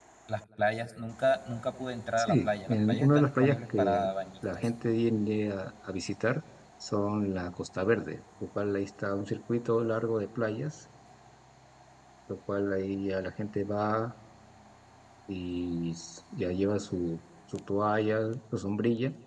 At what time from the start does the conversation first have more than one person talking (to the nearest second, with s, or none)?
2 s